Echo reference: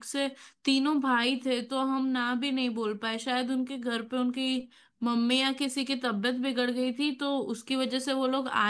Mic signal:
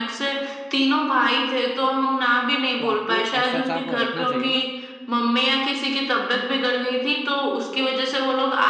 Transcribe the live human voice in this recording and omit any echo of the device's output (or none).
तो आपको एक्स्ट्रा स्टाफ रखना चाहिए ना